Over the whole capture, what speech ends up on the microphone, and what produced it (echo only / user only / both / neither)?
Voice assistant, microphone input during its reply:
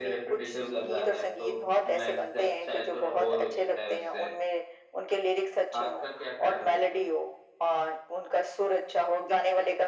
both